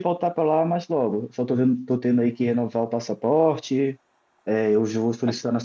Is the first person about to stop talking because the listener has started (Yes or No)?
No